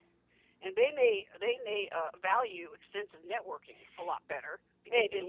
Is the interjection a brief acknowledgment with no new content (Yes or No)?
Yes